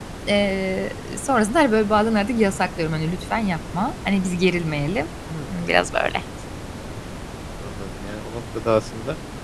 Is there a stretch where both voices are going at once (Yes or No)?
No